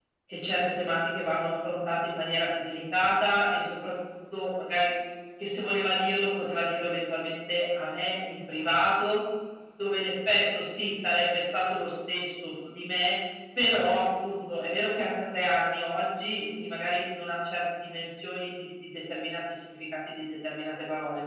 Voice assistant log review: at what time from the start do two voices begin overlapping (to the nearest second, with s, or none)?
none